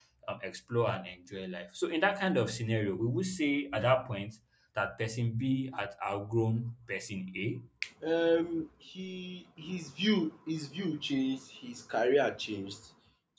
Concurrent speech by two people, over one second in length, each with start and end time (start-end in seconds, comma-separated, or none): none